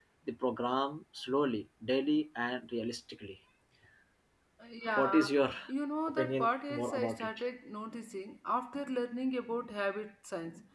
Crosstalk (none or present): present